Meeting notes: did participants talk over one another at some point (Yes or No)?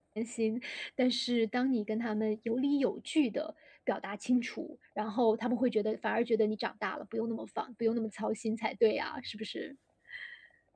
No